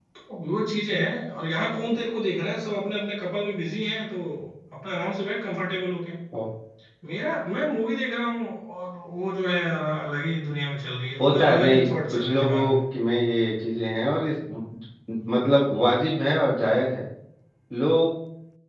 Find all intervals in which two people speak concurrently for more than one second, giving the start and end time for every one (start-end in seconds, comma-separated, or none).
11.2-12.8